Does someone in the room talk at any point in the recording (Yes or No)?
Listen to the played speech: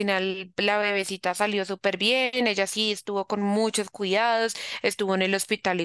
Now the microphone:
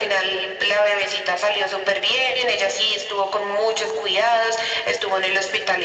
No